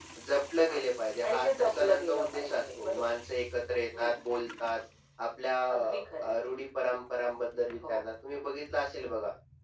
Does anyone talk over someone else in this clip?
Yes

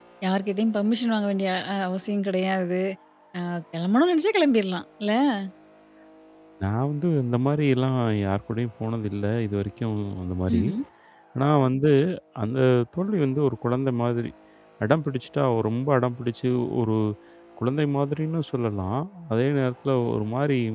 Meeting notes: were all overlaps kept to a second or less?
Yes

